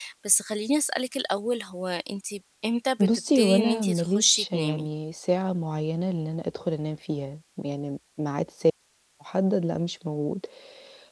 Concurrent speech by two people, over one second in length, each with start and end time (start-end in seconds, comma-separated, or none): 3.1-4.9